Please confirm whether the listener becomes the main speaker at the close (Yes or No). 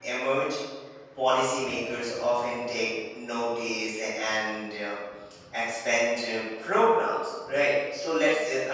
No